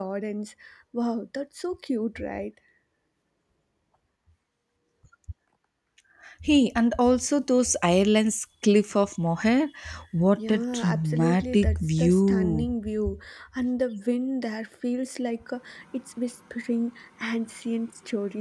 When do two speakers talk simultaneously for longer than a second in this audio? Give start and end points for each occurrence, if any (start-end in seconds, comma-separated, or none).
10.4-12.7